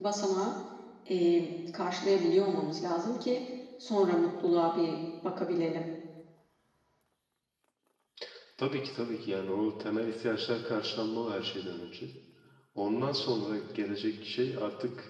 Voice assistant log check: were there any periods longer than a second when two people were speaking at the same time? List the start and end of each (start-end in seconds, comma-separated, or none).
none